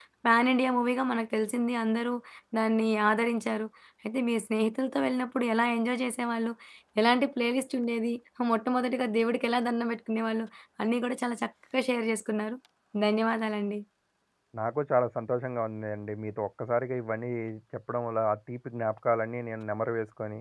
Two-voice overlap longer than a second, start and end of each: none

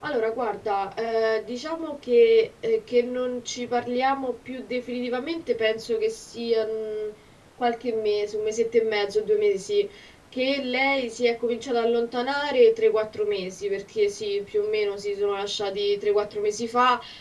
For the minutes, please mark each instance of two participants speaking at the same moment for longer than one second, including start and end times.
none

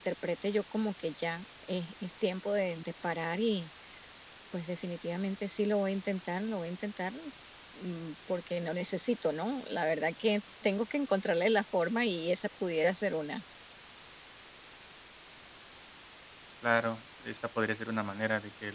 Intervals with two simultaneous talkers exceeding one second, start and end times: none

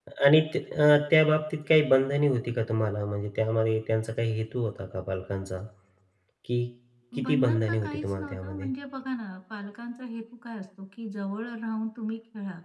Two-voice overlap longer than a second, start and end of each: 7.2-8.7

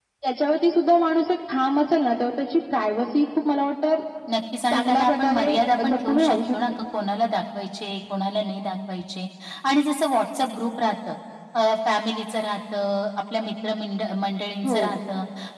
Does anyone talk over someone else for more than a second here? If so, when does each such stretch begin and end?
4.7-6.6

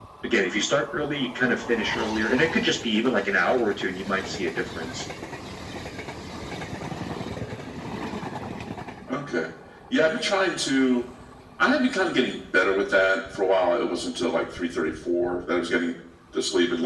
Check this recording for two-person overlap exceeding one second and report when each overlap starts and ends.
none

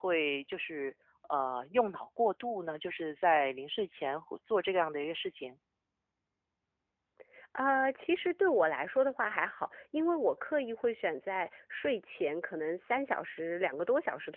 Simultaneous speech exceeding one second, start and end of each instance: none

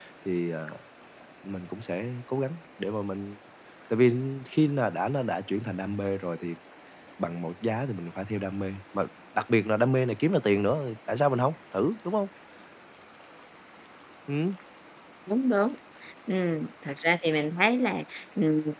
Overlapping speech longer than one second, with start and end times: none

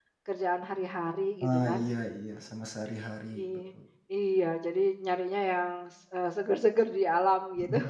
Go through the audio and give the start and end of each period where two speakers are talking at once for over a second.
none

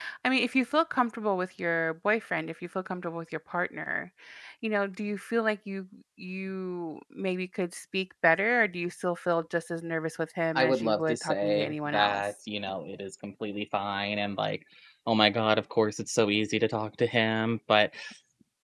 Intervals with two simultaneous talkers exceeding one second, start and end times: 10.6-12.2

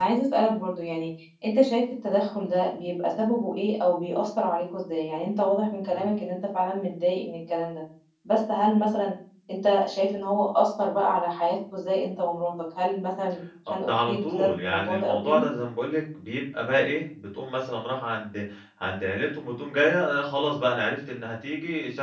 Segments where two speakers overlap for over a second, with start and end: 13.7-15.5

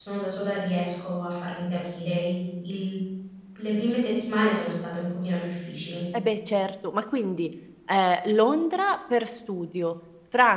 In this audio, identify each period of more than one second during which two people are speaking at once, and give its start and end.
none

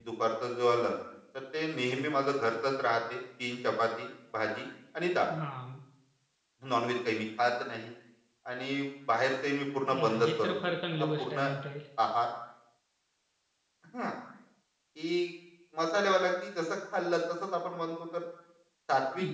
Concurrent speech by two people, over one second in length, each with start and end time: 10.0-11.5

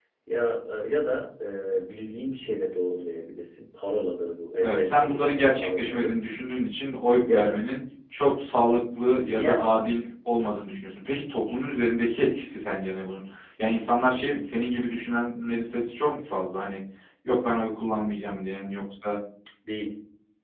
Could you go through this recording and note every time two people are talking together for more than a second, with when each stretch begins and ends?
4.6-6.2

